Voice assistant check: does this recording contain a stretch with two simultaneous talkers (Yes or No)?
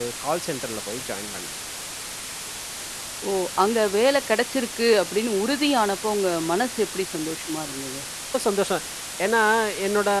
No